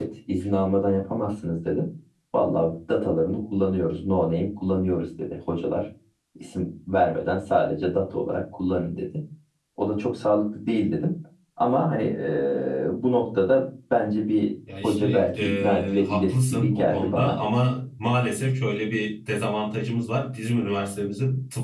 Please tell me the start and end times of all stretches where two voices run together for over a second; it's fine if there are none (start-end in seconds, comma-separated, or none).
14.8-17.4